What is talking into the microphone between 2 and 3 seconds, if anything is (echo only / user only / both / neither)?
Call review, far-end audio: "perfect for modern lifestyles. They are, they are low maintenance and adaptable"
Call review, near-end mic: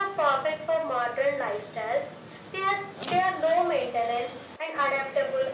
echo only